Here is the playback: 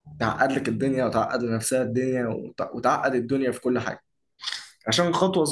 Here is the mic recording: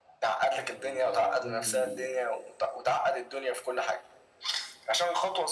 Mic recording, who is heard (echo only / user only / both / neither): both